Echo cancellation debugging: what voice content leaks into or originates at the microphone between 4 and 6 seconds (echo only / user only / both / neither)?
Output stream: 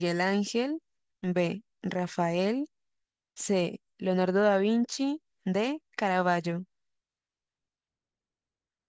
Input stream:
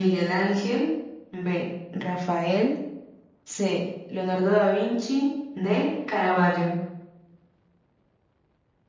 echo only